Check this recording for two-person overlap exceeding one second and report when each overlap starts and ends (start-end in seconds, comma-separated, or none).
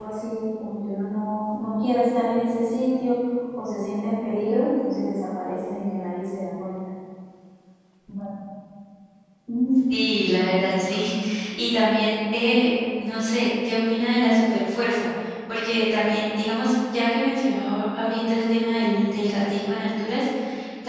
none